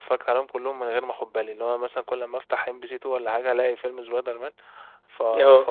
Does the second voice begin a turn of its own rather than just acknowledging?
No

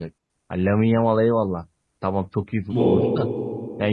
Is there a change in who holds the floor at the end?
No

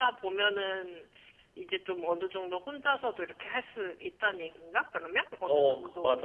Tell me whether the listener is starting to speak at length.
Yes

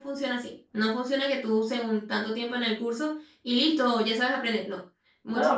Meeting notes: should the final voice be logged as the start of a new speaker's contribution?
Yes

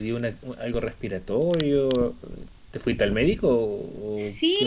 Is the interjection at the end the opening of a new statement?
Yes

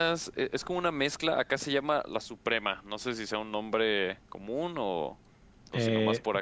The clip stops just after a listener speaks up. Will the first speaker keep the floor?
No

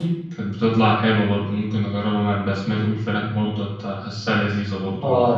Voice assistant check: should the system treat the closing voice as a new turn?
Yes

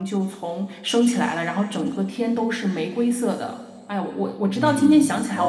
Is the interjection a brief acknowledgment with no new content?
No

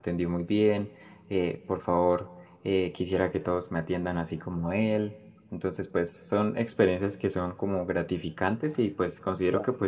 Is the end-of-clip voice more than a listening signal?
No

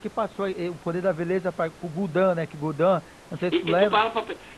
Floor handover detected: Yes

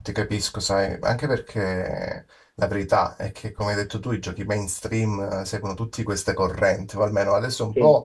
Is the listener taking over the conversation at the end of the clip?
No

